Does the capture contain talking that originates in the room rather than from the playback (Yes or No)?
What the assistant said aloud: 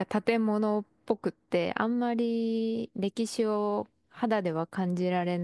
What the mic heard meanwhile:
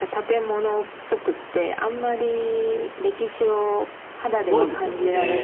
Yes